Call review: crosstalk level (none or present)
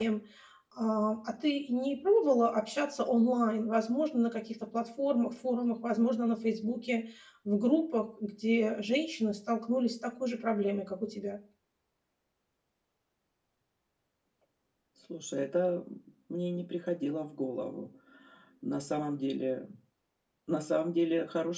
none